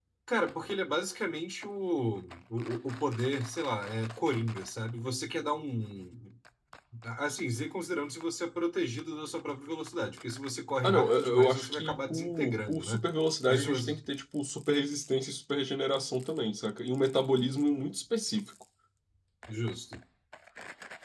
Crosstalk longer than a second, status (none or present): present